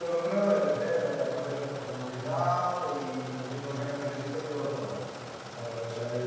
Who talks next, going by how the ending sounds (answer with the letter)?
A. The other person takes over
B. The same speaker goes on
B